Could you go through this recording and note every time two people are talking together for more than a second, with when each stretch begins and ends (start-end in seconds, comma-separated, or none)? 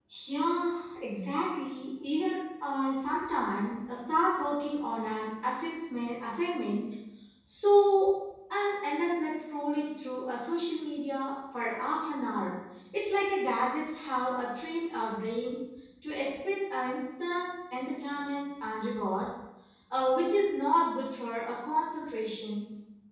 none